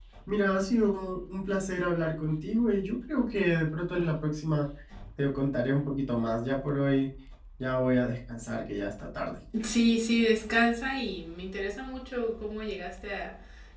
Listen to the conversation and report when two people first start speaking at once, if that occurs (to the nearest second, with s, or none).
none